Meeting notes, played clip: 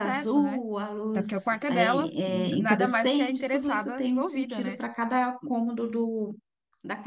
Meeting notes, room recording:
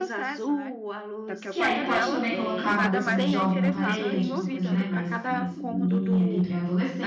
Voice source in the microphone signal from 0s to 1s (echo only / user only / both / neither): echo only